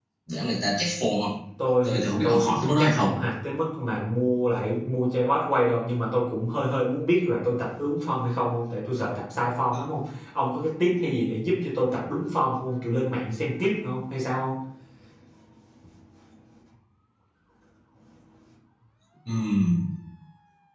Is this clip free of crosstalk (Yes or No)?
No